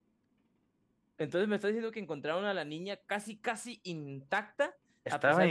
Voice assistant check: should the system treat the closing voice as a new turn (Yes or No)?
No